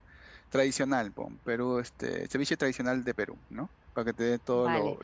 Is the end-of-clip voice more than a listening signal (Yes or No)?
Yes